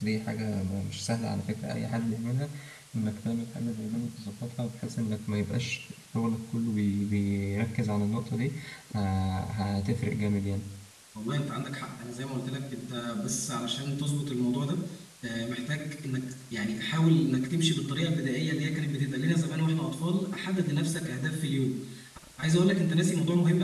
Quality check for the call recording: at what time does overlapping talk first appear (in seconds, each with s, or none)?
none